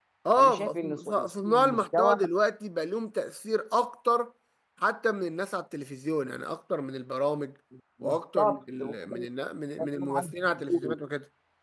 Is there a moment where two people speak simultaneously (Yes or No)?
Yes